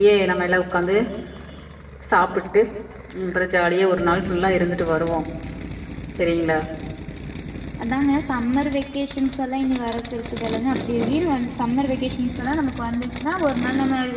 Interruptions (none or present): none